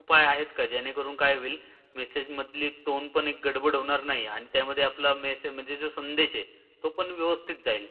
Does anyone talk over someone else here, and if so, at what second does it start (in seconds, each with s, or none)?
none